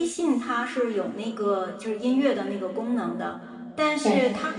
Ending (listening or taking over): listening